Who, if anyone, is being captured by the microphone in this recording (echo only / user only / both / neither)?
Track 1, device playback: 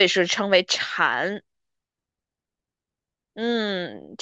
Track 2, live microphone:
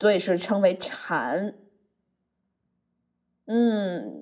echo only